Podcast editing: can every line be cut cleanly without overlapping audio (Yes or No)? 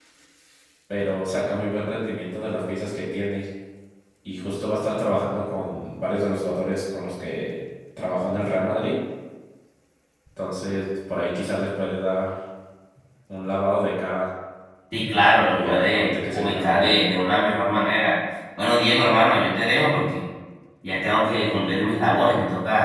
No